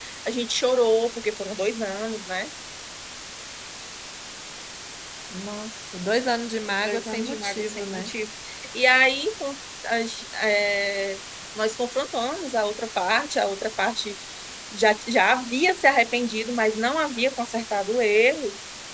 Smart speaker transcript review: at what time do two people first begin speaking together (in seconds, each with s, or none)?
6.8 s